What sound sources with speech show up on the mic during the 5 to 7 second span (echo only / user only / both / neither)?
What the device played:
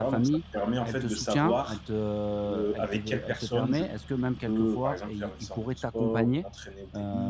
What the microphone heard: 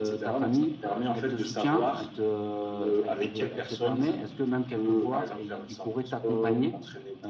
echo only